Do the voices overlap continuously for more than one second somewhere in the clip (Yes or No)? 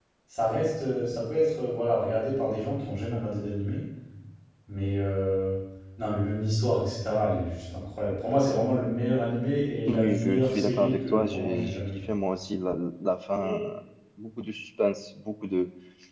Yes